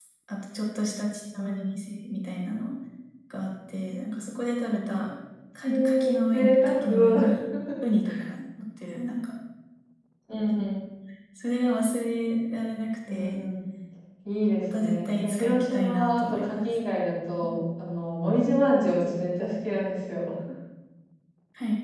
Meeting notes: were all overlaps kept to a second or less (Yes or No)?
No